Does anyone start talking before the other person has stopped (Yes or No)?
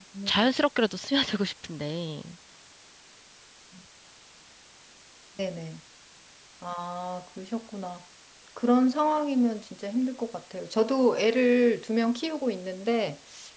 No